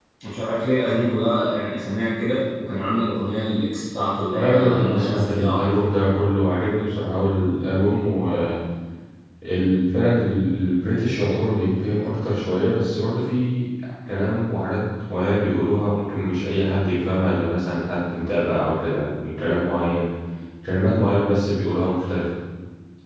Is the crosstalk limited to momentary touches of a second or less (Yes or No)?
No